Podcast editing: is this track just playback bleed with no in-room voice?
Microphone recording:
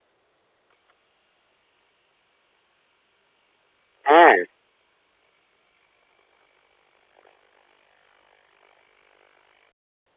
No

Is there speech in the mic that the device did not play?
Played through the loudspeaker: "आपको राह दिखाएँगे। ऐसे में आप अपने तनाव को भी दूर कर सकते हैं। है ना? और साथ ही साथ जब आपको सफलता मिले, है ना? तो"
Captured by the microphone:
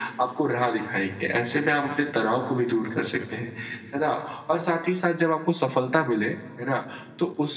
No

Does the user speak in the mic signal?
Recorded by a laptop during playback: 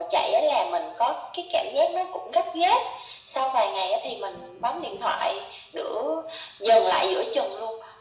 No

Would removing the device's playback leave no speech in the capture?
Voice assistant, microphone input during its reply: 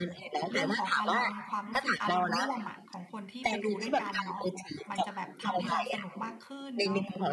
No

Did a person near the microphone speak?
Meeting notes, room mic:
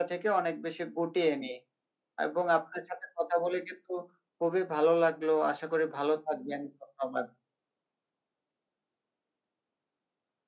No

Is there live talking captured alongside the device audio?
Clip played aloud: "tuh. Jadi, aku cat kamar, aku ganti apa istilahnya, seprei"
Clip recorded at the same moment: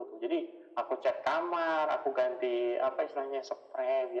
No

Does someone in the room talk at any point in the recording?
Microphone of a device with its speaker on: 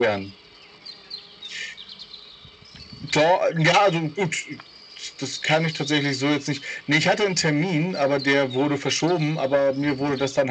No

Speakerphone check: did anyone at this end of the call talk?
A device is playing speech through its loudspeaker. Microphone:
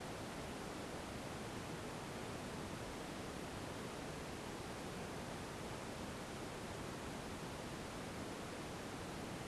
No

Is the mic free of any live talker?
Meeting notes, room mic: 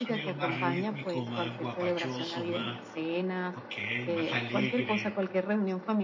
No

